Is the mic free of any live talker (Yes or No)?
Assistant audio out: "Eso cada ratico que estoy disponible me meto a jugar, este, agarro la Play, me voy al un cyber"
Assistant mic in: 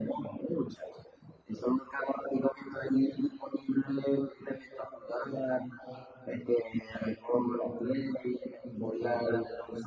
Yes